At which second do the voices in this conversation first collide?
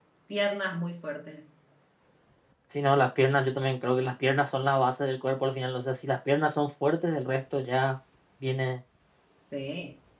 none

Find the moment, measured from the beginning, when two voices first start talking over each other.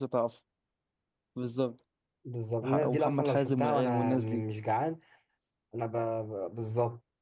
2.6 s

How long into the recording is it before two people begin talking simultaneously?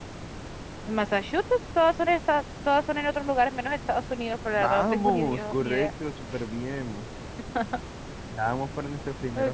4.5 s

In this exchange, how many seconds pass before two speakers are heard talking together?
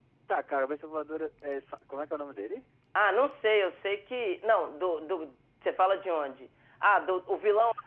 none

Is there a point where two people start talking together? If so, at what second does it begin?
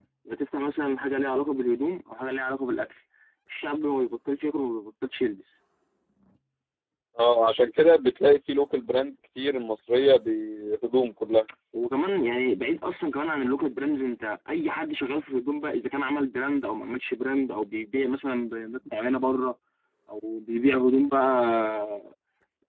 none

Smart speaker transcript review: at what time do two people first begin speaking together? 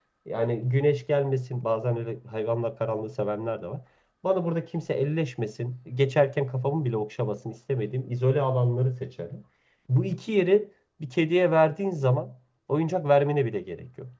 none

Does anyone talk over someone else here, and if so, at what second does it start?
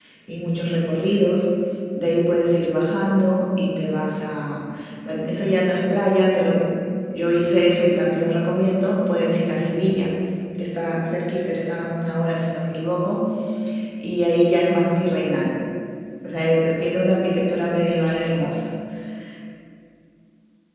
none

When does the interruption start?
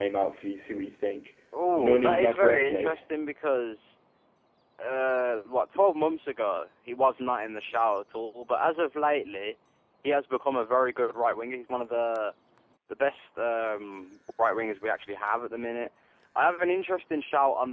1.8 s

